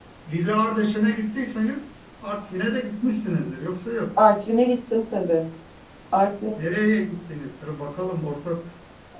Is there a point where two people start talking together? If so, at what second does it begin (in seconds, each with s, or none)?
none